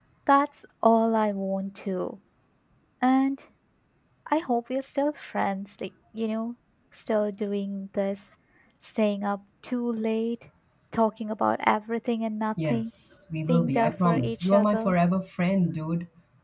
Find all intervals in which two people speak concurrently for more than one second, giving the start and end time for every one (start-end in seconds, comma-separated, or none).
13.5-14.9